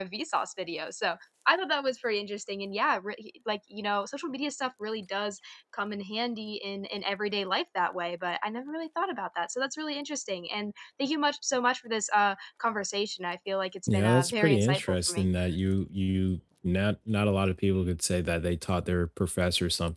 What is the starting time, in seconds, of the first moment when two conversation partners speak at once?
13.9 s

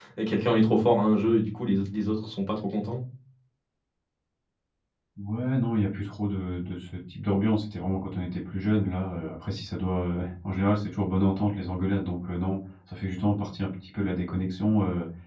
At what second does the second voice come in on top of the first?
none

